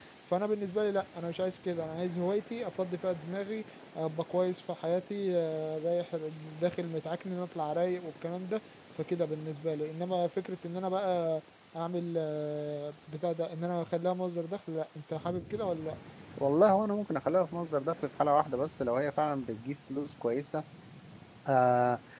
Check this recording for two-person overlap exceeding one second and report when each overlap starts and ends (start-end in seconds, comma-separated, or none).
none